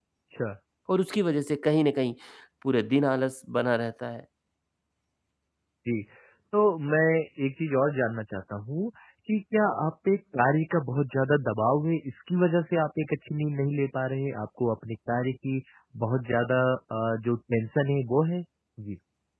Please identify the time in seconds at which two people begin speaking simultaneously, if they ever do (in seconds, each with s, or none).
none